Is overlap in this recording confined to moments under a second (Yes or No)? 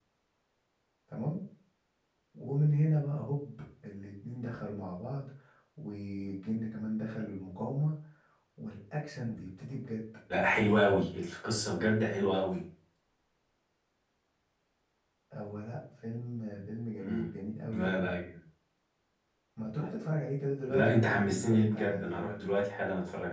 No